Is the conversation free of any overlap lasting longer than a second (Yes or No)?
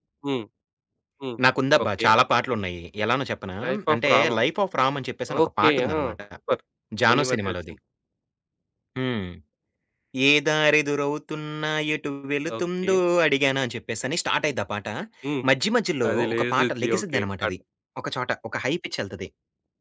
No